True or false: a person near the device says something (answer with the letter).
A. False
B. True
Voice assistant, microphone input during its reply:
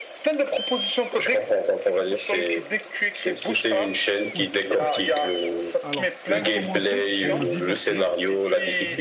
B